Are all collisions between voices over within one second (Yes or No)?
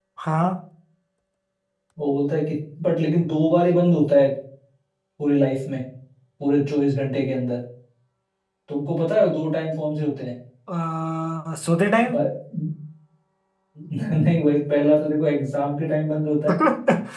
Yes